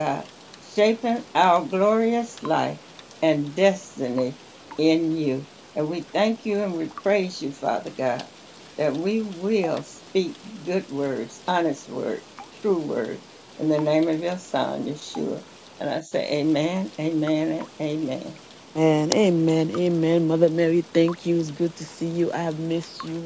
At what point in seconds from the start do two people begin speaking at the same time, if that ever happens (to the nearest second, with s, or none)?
none